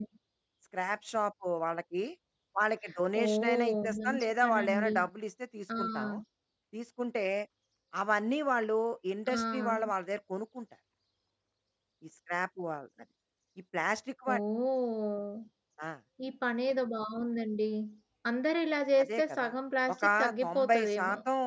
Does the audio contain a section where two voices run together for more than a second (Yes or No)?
Yes